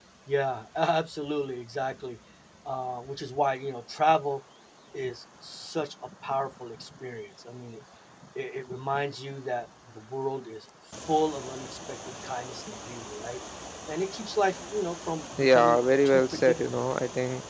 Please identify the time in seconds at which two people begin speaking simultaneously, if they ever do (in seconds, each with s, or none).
15.4 s